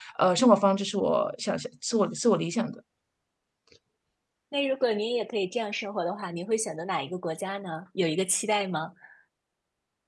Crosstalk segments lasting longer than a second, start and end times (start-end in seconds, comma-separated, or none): none